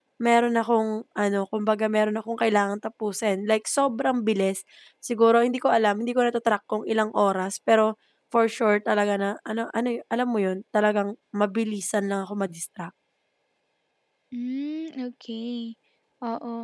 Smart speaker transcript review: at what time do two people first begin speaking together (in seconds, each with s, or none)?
none